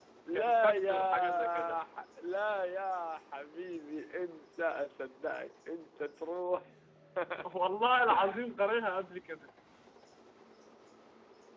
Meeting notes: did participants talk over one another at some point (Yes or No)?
Yes